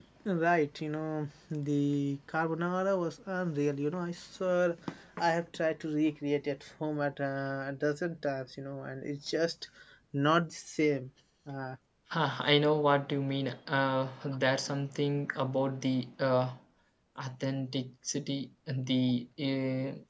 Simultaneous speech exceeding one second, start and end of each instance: none

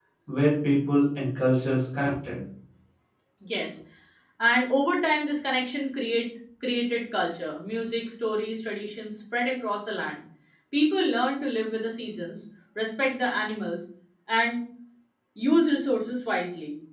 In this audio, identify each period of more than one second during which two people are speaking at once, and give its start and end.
none

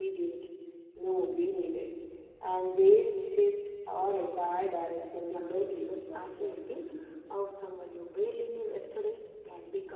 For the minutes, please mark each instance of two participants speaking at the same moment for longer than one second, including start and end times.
5.2-6.6

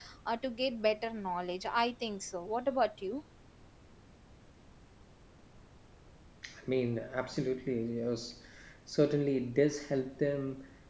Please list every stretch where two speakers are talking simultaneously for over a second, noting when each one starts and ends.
none

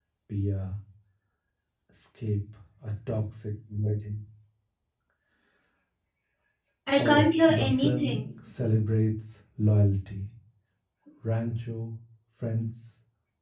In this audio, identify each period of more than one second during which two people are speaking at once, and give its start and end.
6.9-8.2

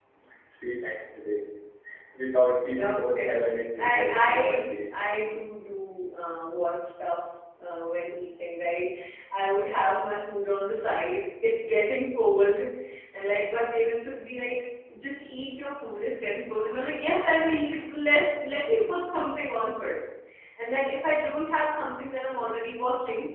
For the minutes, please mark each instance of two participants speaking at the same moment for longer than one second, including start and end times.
2.8-4.7

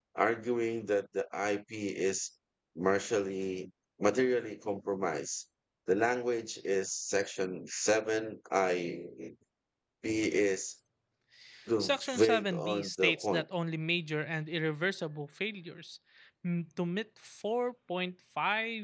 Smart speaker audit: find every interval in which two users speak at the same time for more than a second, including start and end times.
11.8-13.4

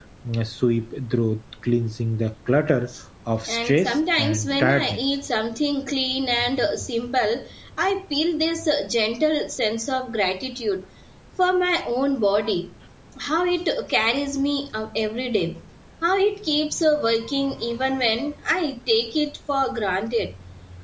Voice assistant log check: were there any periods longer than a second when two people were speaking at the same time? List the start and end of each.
3.5-5.0

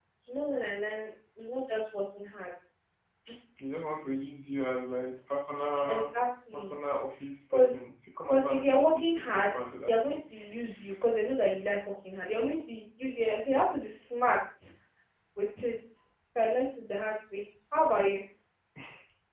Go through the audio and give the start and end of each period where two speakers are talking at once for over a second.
8.3-10.2

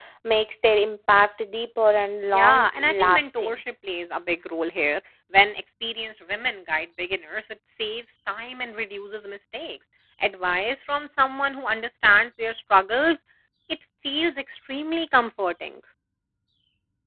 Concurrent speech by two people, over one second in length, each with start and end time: 2.3-3.6

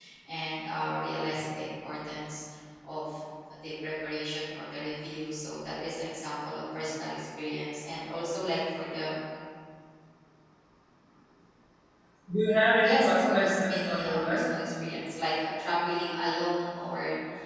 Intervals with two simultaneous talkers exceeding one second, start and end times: 12.8-14.4

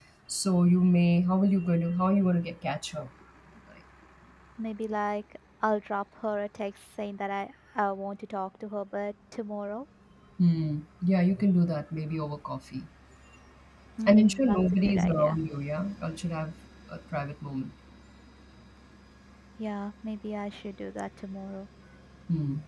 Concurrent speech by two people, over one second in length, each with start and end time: 14.1-15.4

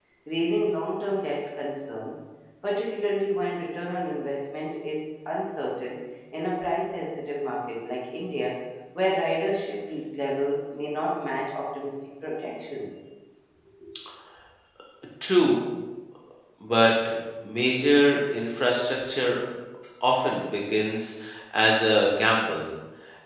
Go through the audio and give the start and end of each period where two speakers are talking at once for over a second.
none

